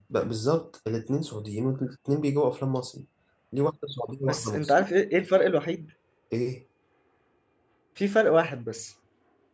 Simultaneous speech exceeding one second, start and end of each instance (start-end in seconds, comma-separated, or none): none